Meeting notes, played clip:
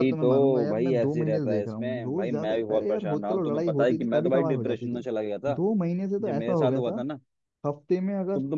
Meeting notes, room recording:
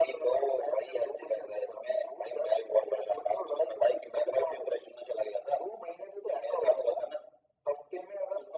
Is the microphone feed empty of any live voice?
Yes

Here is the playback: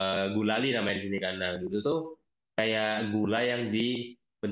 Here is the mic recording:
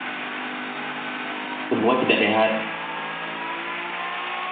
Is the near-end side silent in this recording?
No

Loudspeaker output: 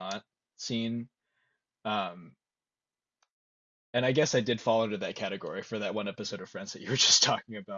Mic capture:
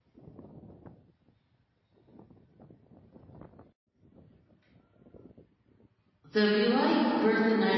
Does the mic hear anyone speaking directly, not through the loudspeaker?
Yes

